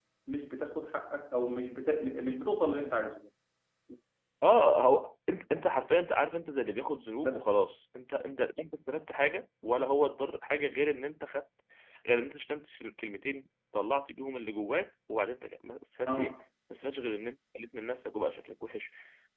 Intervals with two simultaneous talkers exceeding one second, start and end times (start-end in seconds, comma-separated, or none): none